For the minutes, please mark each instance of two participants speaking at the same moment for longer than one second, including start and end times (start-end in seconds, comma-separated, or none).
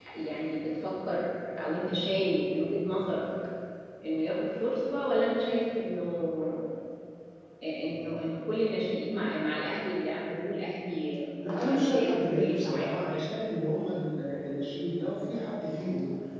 11.5-12.9